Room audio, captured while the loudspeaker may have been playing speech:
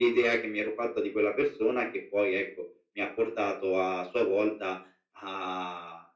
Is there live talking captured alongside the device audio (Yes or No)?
No